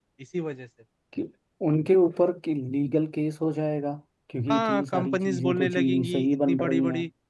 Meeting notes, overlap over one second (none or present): present